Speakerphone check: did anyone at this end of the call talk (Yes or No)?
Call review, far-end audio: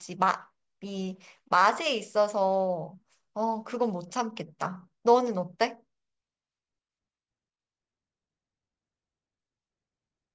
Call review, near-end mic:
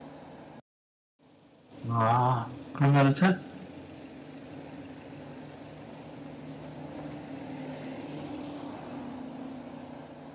Yes